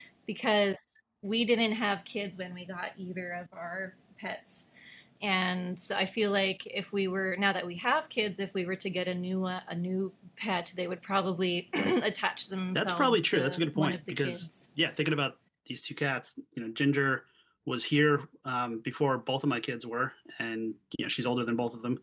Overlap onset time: 12.8 s

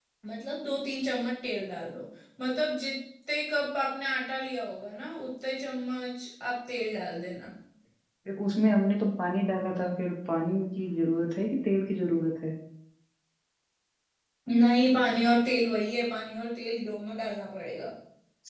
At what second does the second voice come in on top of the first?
none

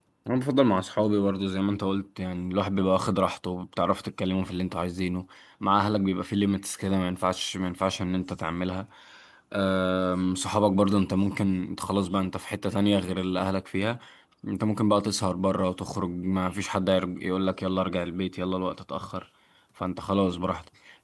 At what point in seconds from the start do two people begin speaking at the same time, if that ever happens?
none

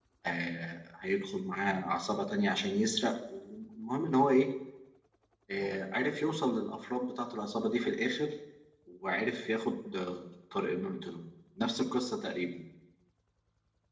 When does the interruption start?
none

